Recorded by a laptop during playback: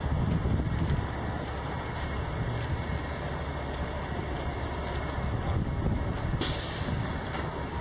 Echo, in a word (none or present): none